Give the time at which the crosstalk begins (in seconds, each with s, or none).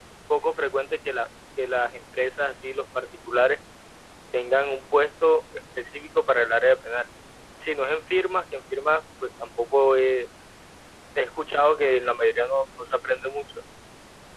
none